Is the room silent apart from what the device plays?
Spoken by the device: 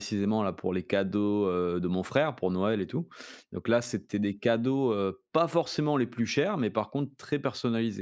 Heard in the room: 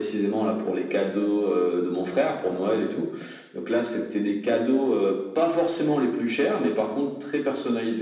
Yes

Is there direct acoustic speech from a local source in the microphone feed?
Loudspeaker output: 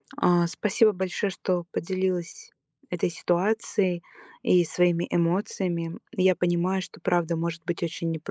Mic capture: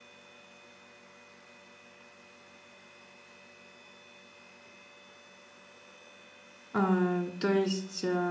Yes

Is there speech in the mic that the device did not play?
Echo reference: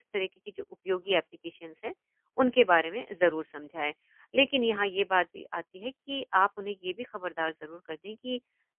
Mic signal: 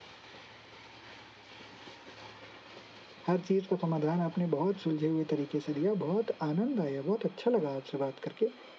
Yes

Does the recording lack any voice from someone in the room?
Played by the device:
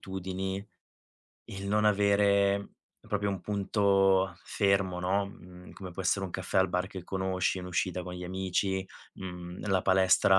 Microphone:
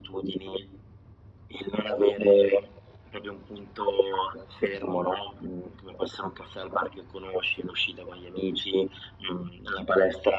Yes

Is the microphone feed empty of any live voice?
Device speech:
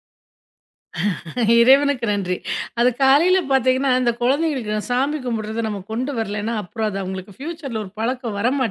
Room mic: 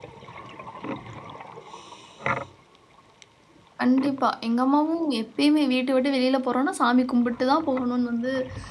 No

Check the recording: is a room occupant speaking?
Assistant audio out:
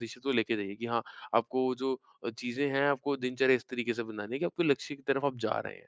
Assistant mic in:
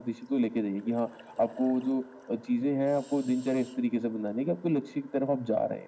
No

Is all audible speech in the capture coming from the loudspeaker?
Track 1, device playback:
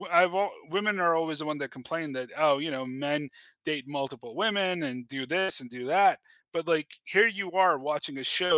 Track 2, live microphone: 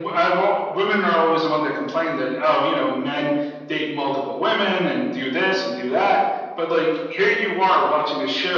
Yes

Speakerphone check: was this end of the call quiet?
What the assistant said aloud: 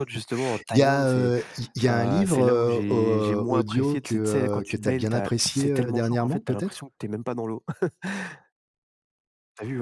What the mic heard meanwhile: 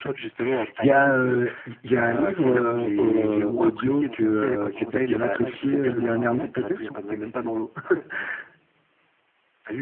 No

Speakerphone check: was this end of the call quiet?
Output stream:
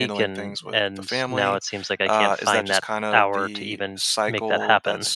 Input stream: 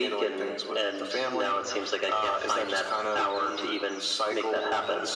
Yes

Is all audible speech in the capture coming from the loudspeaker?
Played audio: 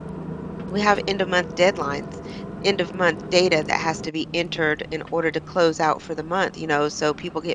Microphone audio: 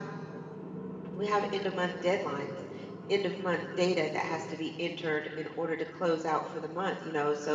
Yes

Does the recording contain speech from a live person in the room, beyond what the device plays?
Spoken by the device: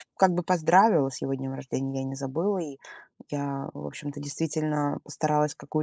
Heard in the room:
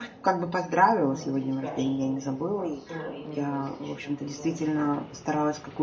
Yes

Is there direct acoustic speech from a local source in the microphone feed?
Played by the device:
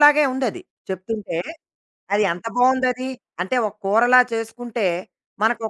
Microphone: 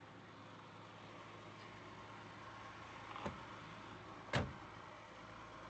No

